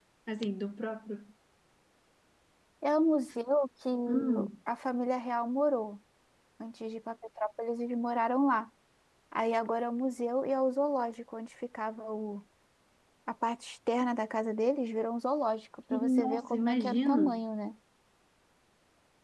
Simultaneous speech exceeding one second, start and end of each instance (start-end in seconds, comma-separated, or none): 15.9-17.4